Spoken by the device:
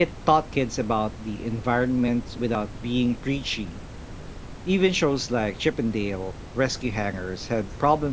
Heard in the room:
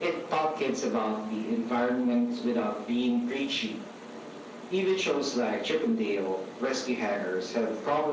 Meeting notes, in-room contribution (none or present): none